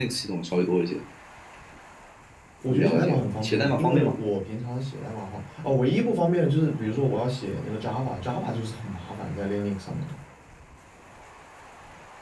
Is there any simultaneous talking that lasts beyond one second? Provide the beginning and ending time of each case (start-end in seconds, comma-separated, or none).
2.7-4.2